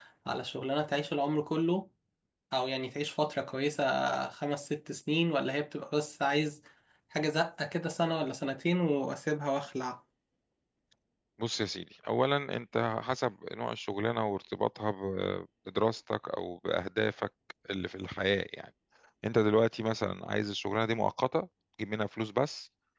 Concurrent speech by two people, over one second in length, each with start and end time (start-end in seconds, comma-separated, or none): none